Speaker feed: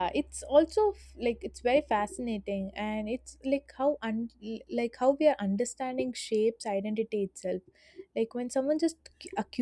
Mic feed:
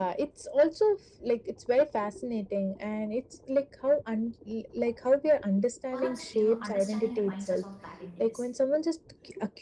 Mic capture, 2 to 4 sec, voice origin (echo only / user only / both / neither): echo only